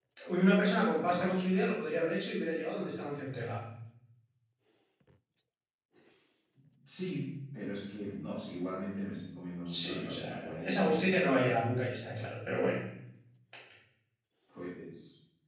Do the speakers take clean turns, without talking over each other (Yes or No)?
No